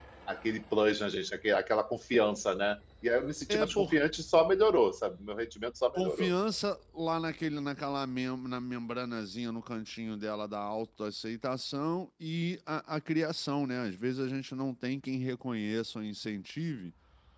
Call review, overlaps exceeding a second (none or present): none